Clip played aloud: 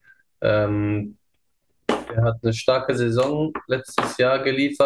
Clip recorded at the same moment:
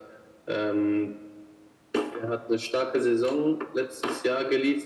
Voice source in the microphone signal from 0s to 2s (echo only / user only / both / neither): echo only